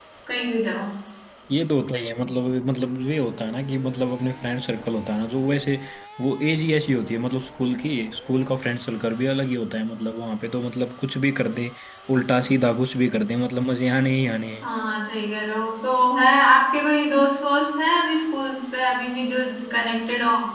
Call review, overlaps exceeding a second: none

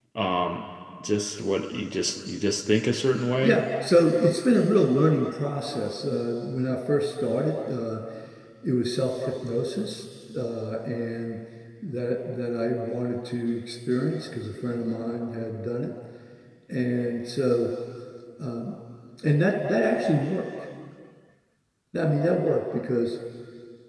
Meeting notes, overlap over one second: none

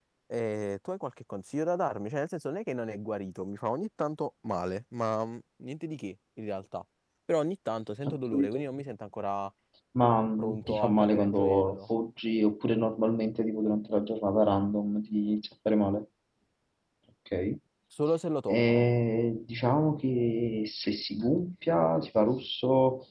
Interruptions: present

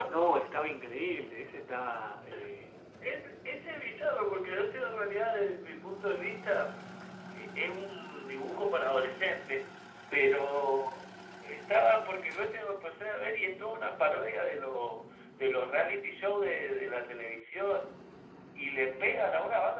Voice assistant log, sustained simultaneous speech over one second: none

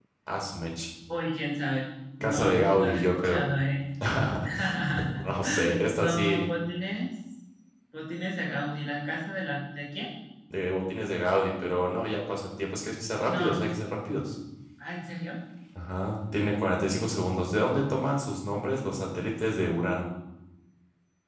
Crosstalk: present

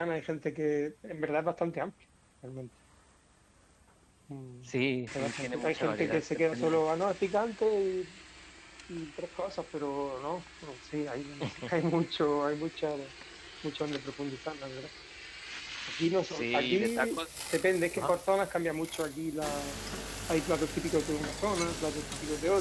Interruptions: present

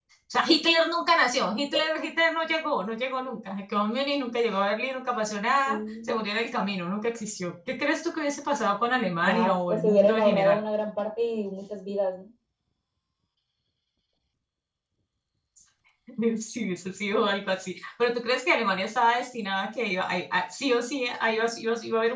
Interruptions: present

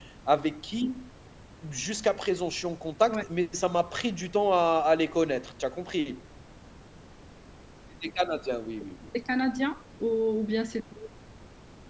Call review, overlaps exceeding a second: none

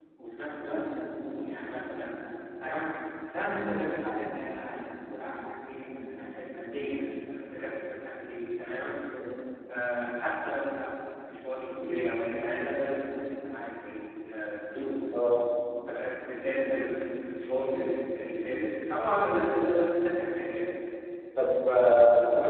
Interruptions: none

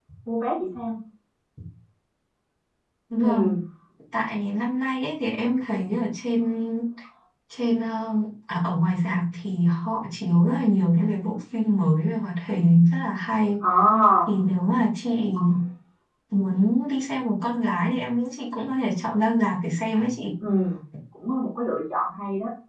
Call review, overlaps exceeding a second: none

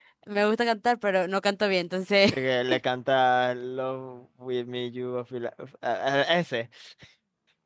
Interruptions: none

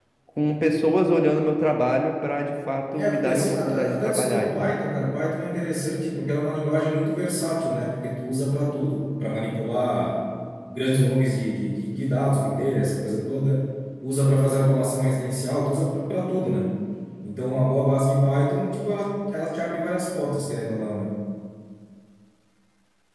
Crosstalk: present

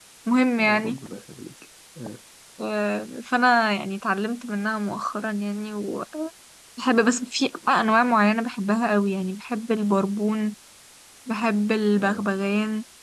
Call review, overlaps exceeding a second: none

